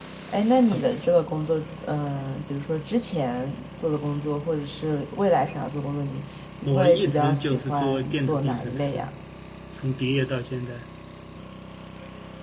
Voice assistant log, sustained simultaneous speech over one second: present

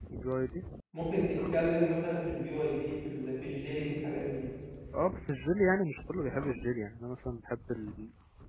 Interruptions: none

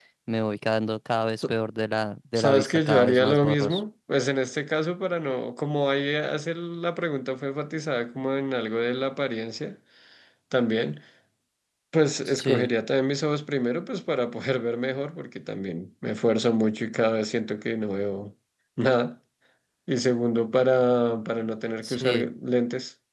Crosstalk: present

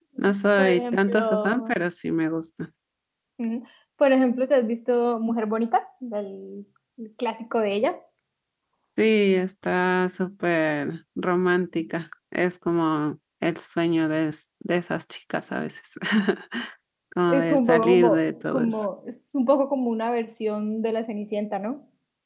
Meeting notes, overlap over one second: present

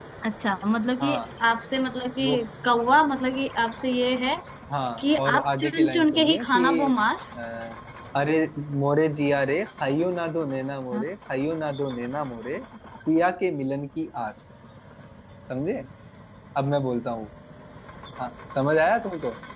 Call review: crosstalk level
present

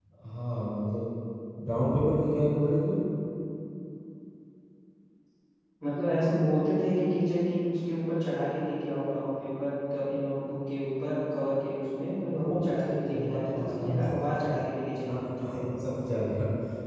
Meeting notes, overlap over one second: present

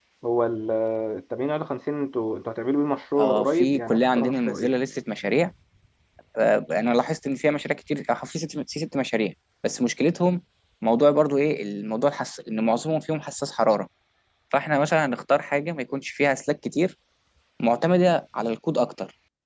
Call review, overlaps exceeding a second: present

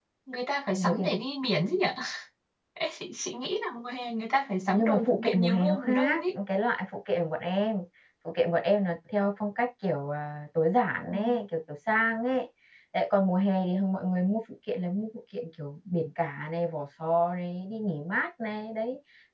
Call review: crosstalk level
present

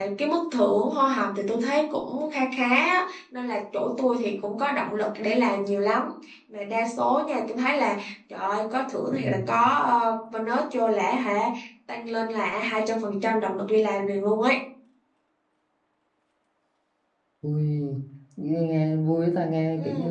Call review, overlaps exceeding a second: none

